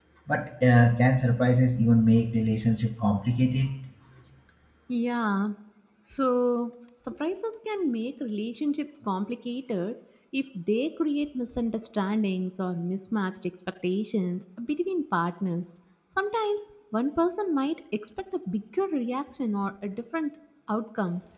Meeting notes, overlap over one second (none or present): none